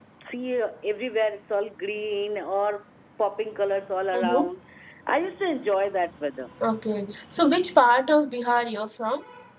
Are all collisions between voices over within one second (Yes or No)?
Yes